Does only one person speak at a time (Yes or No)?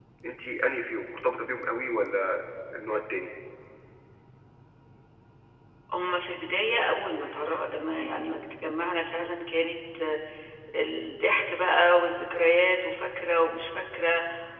Yes